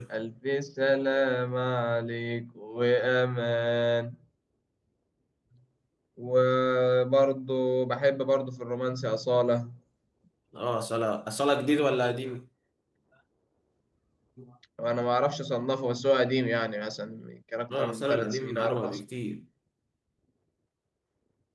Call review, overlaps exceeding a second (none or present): present